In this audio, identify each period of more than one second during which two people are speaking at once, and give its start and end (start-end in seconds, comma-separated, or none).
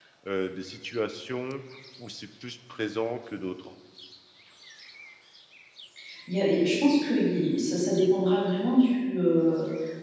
none